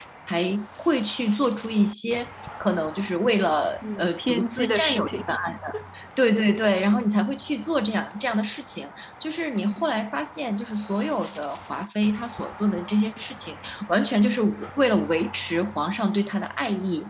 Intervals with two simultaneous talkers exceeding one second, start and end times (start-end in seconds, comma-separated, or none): 4.0-5.2